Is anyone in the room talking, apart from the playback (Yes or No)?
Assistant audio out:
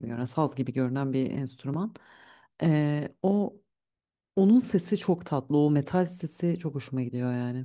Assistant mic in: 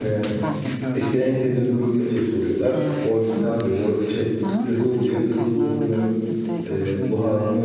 Yes